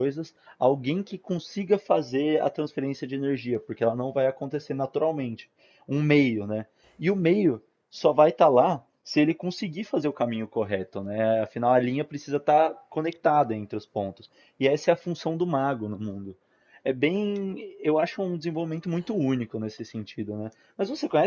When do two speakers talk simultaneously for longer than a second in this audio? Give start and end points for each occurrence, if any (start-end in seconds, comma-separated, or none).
none